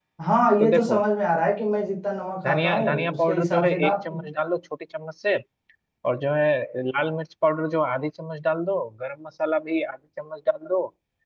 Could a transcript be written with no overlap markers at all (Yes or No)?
No